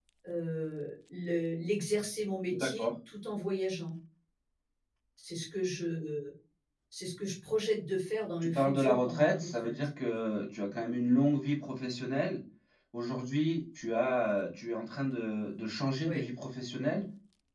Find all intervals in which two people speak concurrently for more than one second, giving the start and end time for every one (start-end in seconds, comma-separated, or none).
8.4-9.7